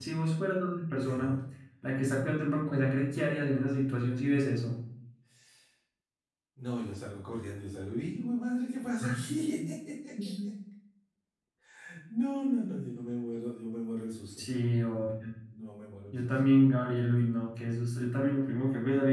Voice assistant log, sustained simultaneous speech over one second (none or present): none